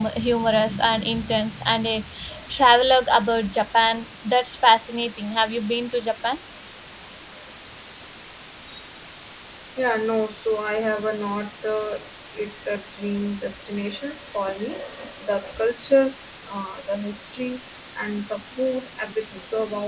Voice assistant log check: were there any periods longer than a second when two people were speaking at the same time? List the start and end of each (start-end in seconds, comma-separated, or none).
none